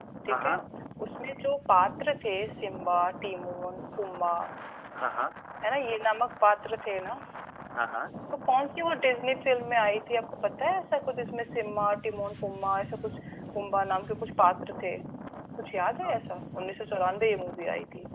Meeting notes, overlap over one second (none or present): none